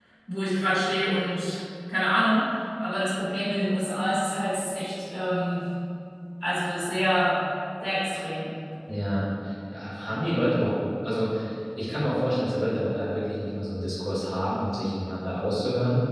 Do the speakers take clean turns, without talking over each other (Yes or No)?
Yes